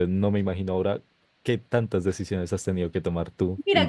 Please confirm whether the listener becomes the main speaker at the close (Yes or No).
Yes